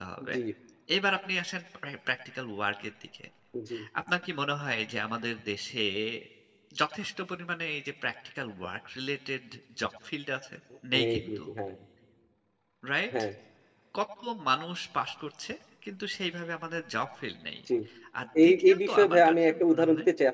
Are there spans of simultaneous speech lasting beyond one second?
Yes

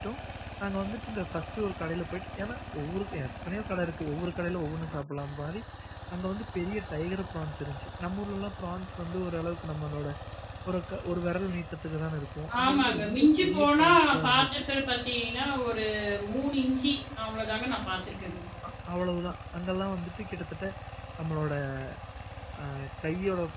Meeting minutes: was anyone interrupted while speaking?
Yes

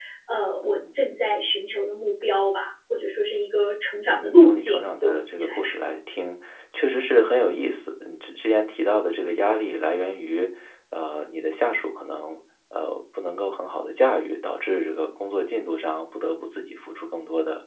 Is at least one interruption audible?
Yes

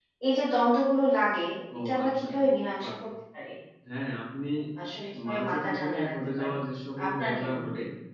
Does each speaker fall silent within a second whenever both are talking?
No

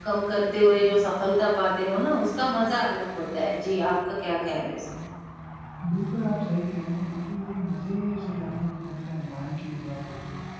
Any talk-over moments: No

